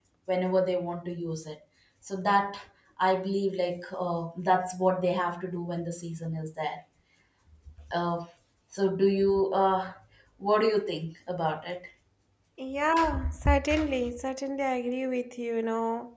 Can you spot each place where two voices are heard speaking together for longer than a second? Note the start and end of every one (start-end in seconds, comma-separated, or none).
none